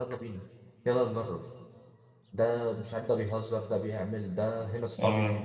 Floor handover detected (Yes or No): No